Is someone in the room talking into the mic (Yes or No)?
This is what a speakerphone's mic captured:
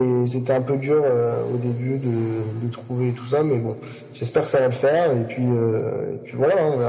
No